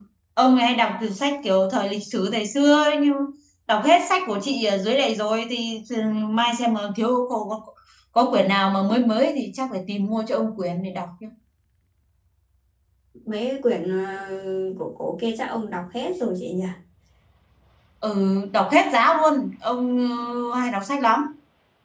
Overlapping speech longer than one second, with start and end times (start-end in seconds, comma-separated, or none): none